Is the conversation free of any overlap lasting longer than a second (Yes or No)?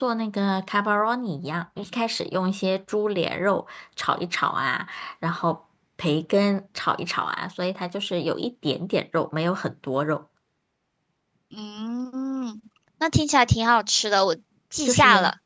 Yes